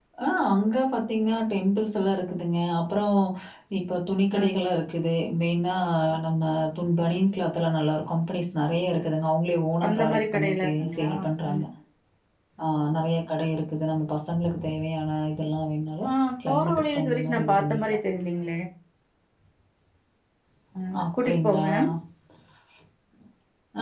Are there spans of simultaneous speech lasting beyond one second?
Yes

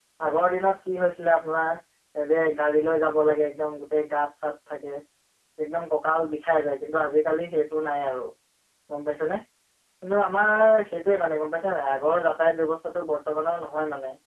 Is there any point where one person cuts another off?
No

